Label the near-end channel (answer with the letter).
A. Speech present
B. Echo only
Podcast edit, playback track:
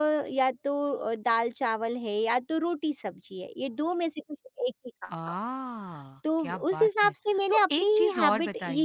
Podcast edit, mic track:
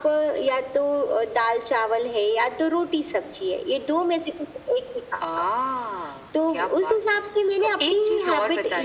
B